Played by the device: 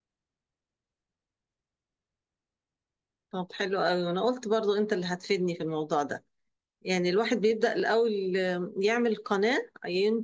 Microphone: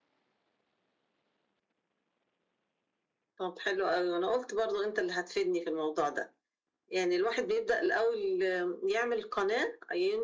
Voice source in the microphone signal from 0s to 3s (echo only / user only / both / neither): neither